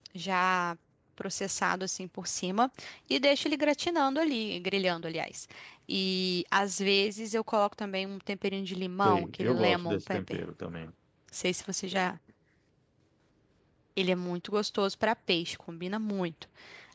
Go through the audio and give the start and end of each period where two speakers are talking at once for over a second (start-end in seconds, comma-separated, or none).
9.0-10.4